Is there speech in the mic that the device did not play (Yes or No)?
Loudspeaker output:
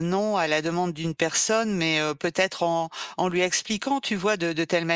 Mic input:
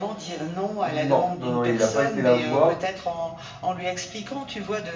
Yes